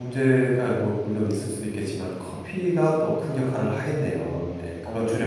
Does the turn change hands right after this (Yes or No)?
Yes